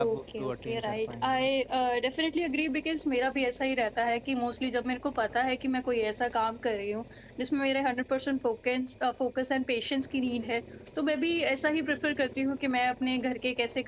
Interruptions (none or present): present